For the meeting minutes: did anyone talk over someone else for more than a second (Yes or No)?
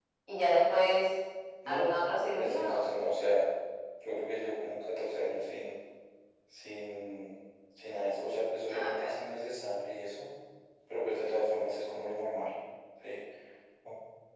No